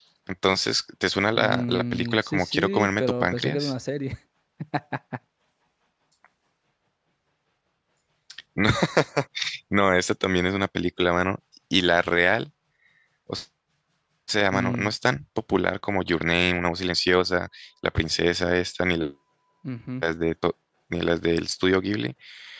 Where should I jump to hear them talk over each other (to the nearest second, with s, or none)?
1 s